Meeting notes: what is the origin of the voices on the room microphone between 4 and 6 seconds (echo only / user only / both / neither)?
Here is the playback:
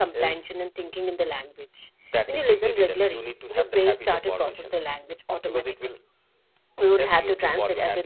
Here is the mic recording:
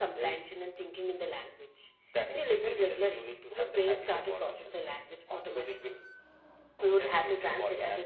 echo only